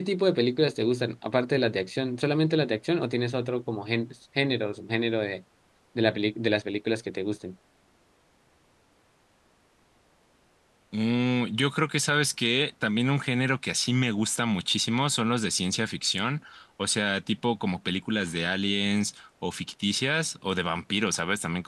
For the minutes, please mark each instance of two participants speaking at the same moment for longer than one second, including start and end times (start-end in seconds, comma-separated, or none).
none